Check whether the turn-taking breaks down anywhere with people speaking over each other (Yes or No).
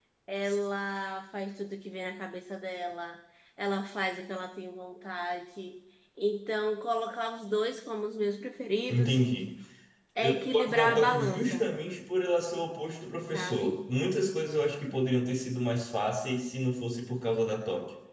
Yes